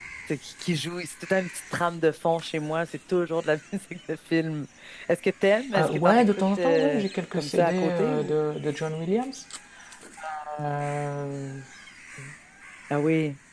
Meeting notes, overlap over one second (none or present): present